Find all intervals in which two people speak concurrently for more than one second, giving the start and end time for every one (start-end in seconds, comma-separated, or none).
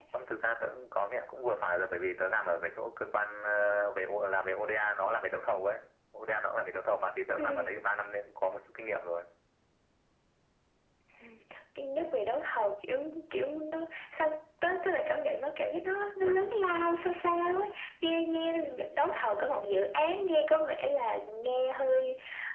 none